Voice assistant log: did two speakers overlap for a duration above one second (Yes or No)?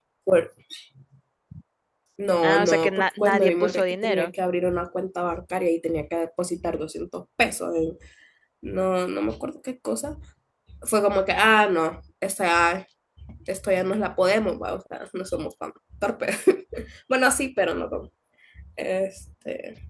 Yes